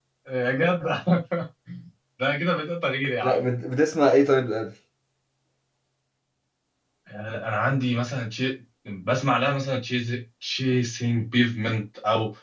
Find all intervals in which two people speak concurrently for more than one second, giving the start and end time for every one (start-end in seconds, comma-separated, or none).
none